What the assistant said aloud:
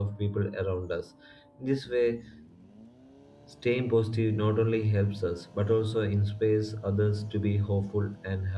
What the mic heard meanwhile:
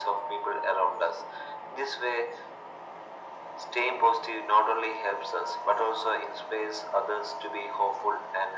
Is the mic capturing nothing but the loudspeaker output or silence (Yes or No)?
Yes